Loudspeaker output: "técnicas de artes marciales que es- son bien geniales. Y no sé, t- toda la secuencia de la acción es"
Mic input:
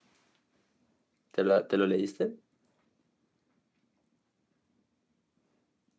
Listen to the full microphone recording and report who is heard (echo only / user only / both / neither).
user only